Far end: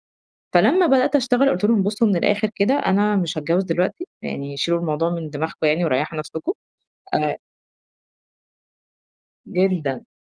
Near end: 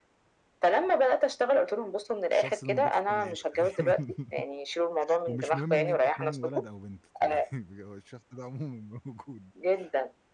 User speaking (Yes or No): Yes